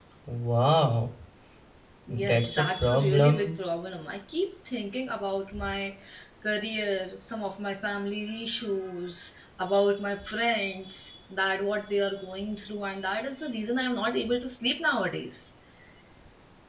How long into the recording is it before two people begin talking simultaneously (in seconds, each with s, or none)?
2.1 s